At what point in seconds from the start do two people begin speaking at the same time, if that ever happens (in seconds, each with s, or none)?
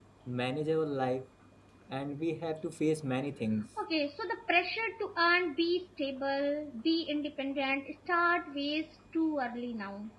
none